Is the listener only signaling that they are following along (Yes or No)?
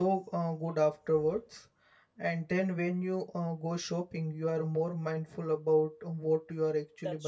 No